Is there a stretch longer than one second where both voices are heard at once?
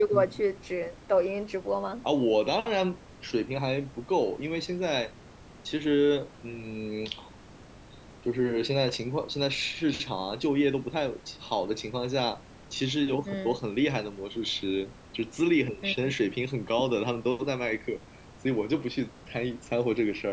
No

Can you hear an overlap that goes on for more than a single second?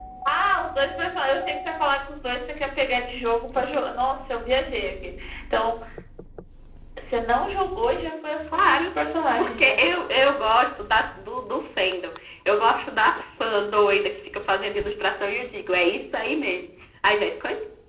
No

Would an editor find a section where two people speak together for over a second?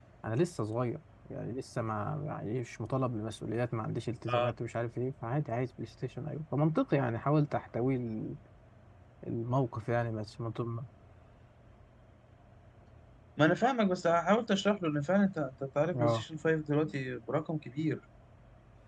No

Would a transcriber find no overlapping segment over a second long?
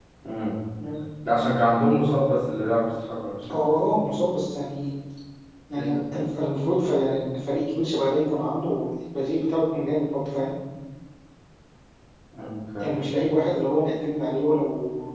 Yes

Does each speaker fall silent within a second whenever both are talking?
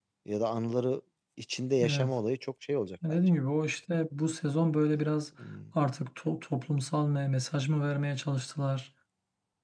Yes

